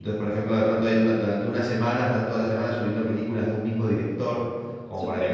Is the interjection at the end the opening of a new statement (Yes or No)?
No